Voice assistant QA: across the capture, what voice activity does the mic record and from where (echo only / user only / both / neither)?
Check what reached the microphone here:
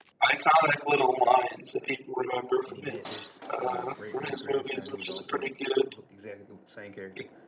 both